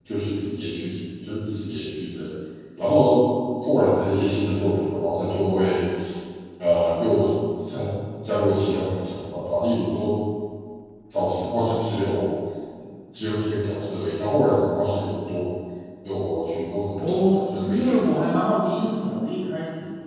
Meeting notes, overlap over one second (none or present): present